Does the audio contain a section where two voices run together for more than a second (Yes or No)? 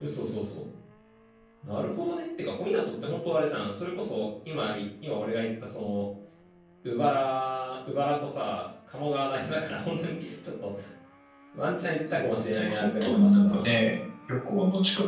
Yes